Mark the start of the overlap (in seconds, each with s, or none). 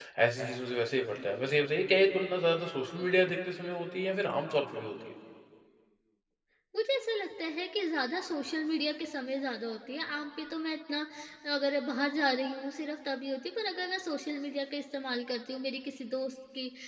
none